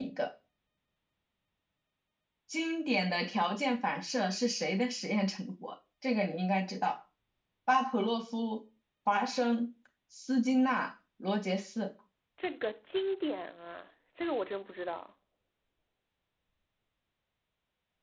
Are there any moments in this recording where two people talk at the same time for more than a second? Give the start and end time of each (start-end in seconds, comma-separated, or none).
none